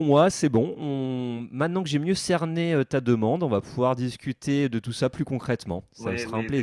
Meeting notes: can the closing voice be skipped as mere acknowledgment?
No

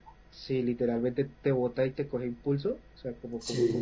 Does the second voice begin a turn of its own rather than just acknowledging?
No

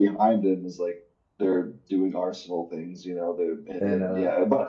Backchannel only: Yes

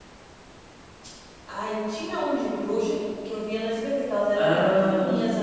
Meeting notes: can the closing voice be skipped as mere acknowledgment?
Yes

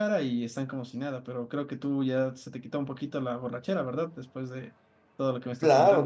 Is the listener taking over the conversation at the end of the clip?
Yes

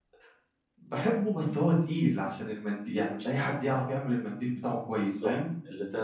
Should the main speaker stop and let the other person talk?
Yes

